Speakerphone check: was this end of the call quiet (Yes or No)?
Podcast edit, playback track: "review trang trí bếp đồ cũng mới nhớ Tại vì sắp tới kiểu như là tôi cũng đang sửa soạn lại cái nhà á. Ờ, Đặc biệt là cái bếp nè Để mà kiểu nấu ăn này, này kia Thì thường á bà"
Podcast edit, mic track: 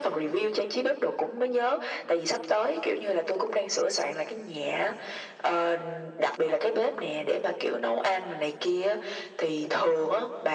Yes